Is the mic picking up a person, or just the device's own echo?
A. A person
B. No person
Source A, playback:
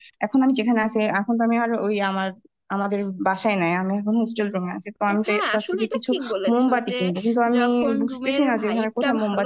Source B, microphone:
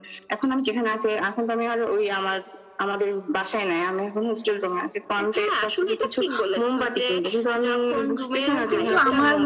A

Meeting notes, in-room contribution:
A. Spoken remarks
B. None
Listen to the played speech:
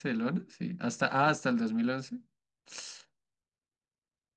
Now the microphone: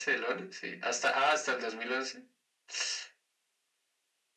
B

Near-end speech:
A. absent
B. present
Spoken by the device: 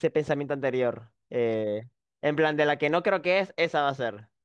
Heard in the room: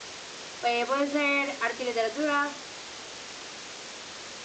B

